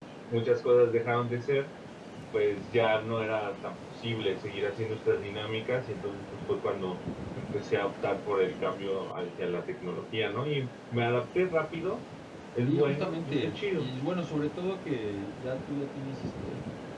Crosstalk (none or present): present